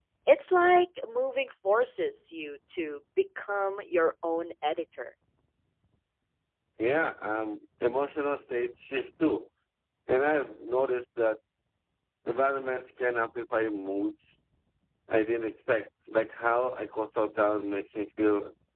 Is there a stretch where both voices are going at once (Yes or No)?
No